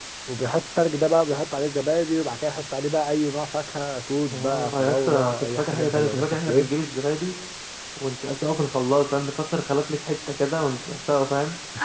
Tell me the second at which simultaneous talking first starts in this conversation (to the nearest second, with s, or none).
4 s